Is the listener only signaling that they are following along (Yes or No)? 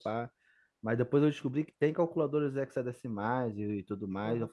No